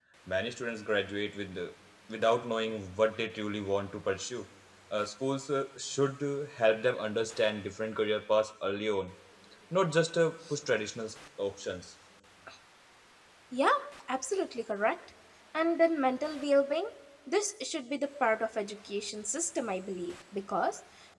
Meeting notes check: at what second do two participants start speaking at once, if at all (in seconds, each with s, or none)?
none